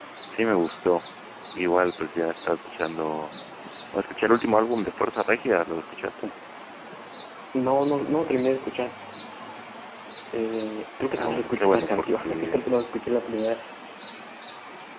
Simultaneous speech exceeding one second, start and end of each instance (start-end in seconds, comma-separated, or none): 11.1-12.7